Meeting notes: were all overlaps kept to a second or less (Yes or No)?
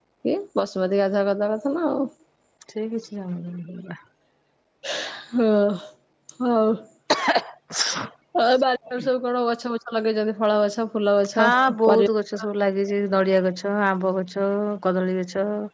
Yes